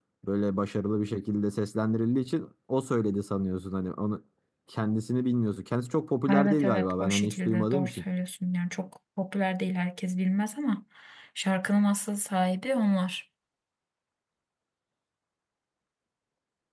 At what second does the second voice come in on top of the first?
6.3 s

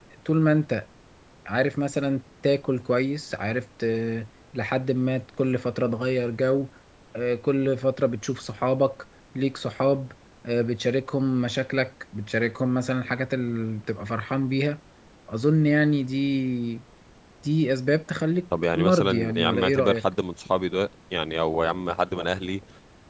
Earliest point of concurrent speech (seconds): 18.5 s

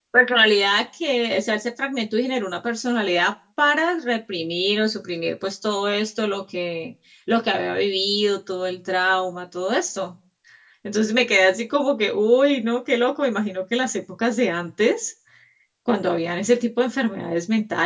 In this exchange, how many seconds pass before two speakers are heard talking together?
none

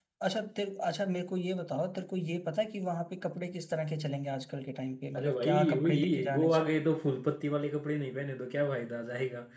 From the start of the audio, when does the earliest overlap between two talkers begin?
5.1 s

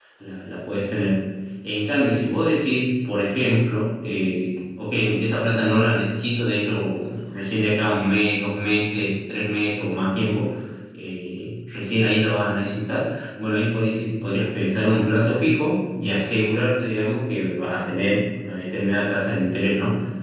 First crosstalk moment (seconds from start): none

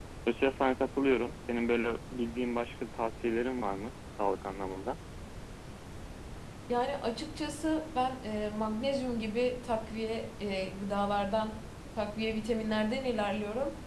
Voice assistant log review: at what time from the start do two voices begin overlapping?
none

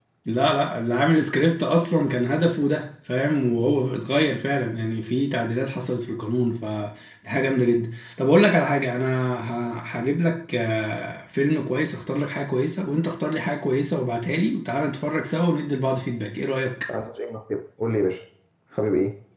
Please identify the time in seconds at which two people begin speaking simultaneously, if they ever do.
none

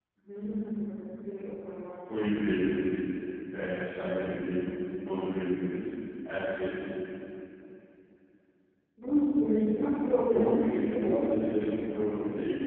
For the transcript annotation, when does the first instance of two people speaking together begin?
9.6 s

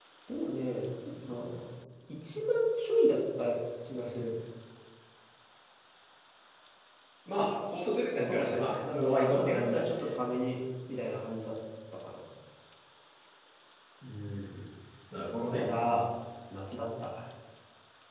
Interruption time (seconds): 8.1 s

